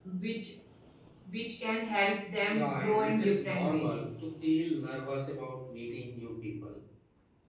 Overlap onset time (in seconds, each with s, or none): 2.5 s